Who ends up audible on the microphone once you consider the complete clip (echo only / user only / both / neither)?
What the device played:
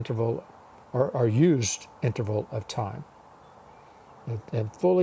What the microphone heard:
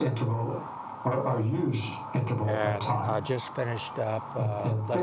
both